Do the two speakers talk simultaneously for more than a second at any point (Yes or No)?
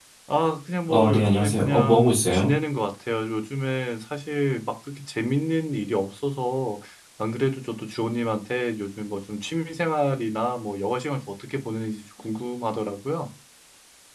Yes